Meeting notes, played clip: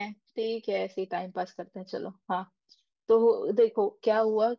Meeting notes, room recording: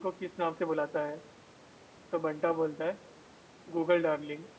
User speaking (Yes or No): Yes